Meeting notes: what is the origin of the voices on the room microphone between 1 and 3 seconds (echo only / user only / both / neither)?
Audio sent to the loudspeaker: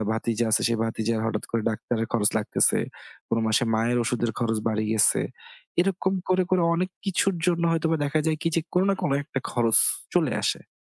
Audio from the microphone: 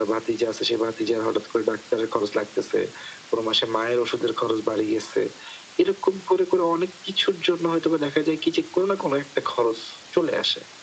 echo only